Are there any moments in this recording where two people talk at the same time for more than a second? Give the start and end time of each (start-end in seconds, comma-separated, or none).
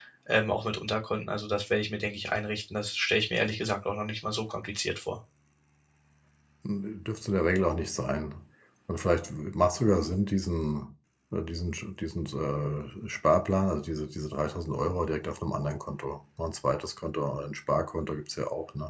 none